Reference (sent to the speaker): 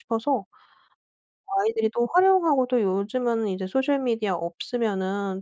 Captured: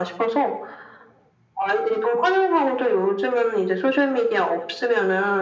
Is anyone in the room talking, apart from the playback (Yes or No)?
No